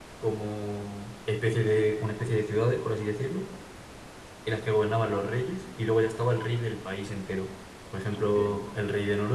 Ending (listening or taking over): listening